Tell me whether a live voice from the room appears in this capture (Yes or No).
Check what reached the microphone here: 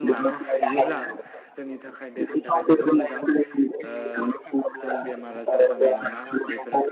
Yes